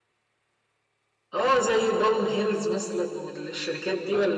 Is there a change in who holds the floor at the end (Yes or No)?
Yes